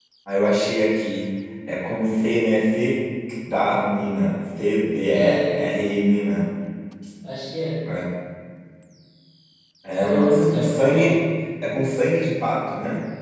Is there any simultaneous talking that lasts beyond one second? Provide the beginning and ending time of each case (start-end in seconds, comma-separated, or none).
10.0-11.2